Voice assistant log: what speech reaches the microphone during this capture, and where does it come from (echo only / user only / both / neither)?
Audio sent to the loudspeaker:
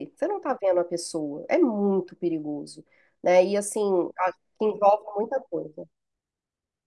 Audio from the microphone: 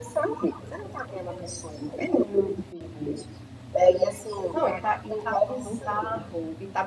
both